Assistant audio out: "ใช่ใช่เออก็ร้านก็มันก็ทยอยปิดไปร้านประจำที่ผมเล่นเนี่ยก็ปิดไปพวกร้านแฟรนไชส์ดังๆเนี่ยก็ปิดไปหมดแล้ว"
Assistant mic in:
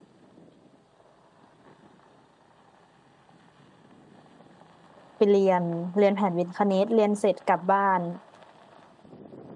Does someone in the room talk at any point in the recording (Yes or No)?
Yes